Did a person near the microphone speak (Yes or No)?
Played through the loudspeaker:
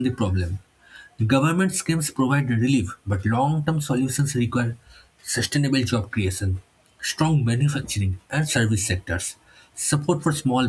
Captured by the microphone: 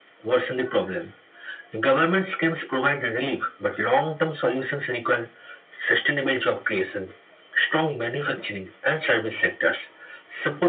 No